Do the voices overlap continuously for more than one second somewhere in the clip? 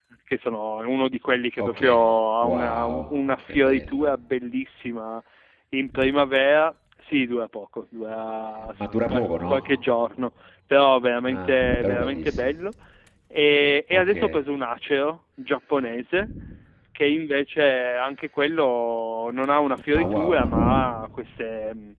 Yes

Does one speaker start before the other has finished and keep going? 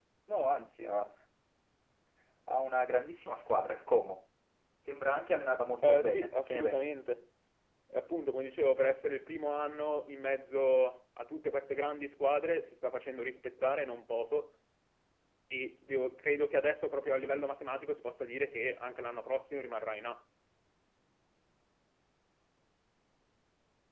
Yes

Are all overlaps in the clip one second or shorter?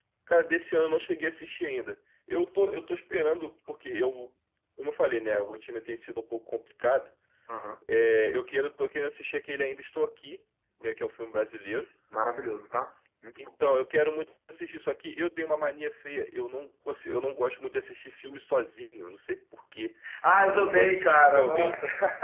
No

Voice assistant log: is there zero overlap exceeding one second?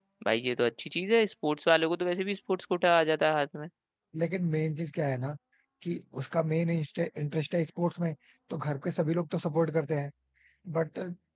Yes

